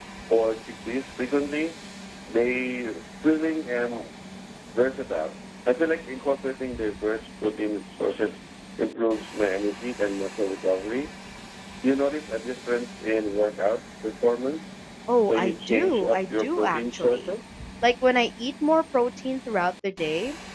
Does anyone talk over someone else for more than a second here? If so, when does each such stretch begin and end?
15.3-17.3

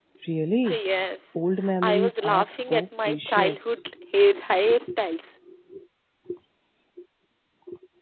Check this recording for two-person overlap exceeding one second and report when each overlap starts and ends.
1.8-3.9

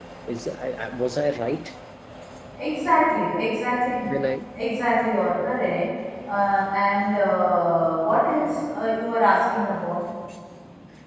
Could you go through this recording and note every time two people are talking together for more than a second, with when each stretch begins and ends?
none

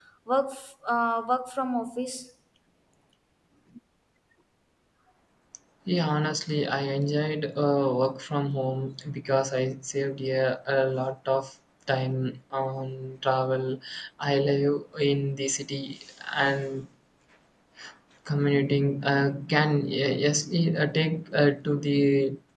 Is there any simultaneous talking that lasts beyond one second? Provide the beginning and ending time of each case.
none

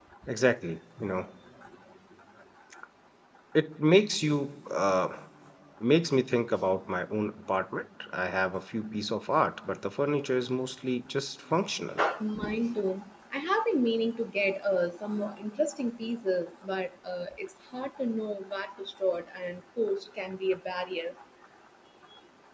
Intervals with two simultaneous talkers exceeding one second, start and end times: none

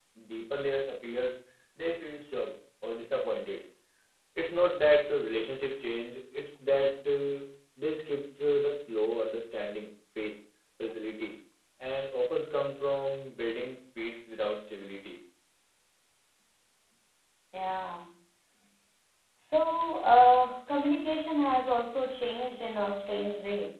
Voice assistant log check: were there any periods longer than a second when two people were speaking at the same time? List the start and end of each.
none

